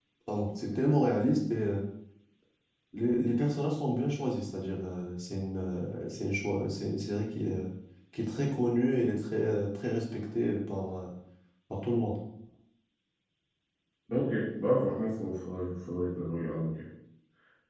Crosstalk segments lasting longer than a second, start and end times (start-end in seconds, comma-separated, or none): none